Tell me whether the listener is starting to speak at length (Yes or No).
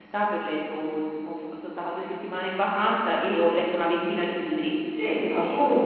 Yes